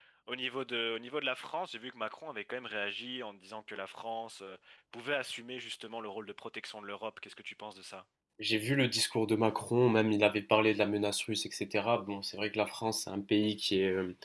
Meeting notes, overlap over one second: none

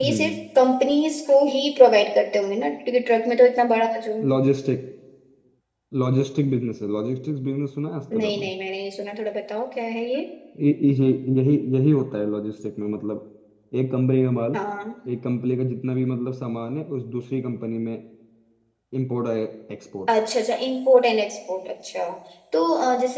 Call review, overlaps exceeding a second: none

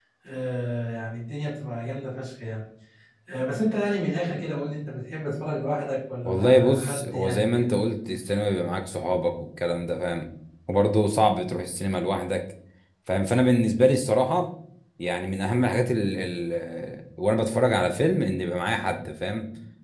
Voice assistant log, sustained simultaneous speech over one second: present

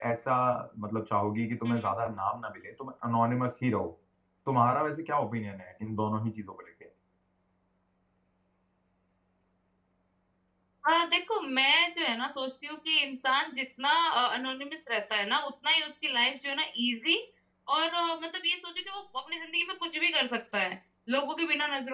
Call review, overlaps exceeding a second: none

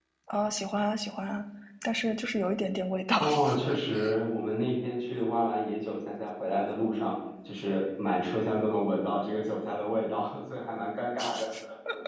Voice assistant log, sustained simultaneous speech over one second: none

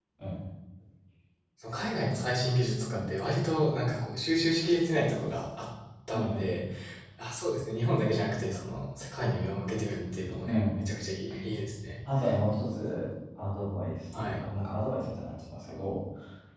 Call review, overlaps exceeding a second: none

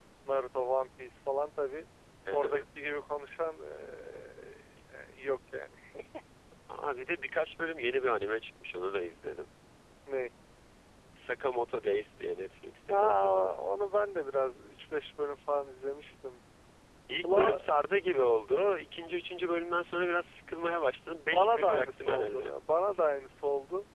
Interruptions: present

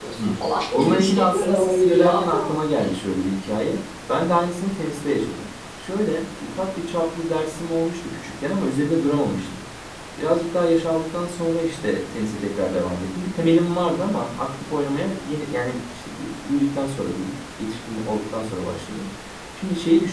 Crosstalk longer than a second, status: present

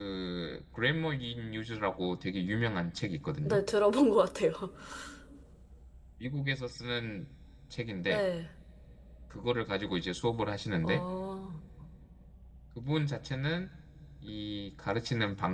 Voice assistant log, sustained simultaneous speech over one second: none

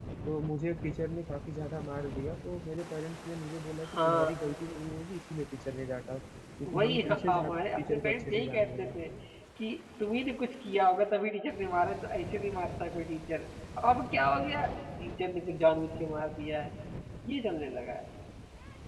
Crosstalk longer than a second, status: present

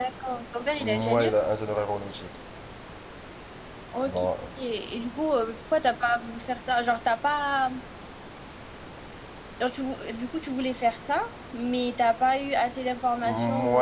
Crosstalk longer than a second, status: none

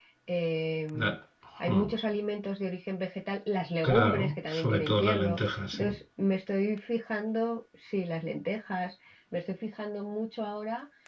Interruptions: present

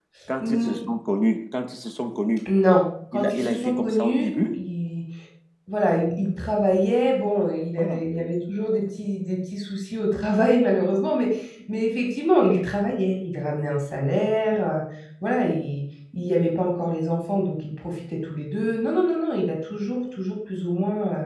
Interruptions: present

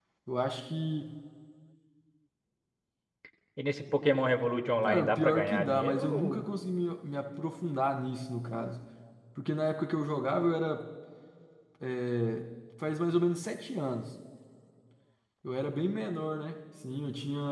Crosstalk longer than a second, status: present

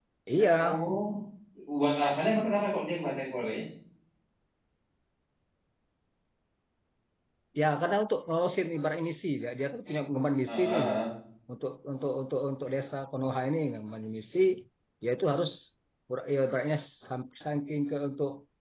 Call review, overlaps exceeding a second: none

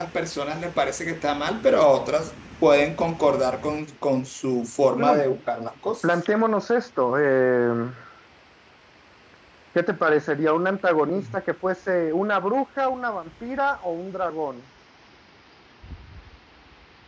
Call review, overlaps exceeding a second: none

